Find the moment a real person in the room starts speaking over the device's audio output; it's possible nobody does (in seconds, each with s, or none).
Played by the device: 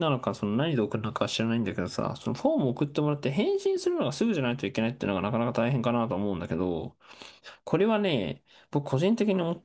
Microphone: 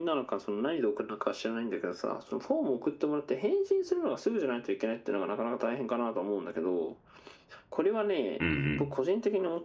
8.4 s